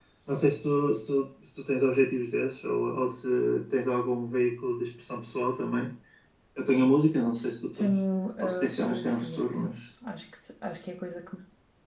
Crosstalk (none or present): present